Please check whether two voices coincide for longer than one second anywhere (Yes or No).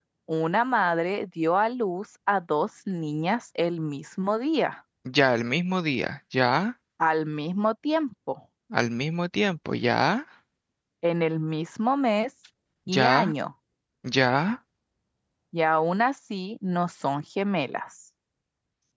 No